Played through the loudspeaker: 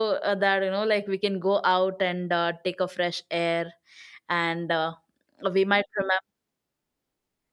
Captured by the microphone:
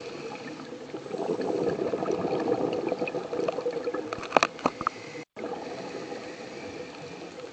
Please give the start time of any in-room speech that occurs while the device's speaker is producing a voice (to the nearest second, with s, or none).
none